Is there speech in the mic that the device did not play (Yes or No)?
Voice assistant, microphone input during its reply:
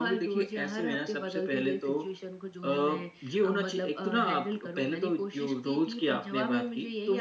No